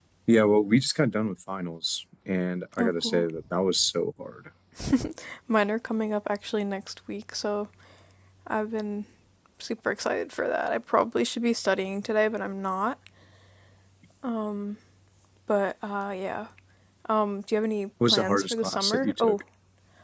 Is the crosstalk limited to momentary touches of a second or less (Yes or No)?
No